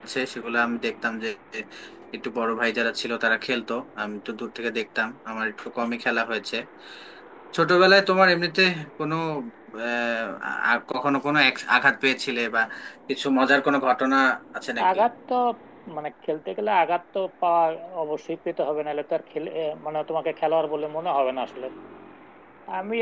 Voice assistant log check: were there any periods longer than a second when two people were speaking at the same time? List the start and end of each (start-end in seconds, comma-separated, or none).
none